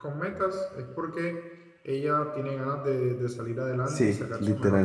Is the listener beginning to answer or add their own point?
Yes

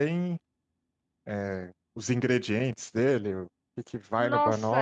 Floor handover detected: Yes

